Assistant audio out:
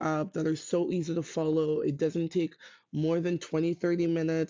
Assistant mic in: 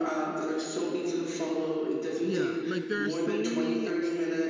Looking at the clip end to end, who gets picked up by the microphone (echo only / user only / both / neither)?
both